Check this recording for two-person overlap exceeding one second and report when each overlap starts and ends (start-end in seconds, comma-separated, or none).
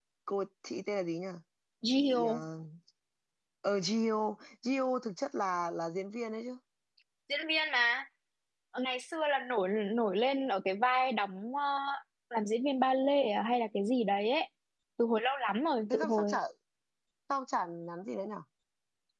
none